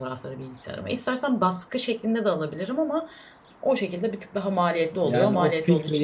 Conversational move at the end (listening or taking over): taking over